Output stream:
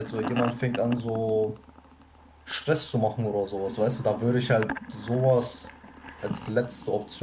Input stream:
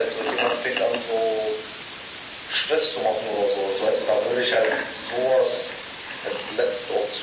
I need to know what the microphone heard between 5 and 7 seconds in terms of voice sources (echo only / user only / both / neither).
echo only